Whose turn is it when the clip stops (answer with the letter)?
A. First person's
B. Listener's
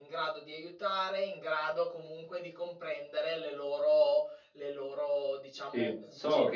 B